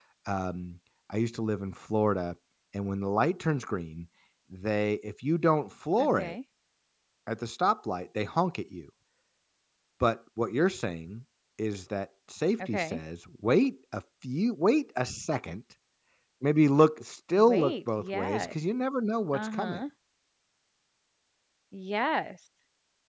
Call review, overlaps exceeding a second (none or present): present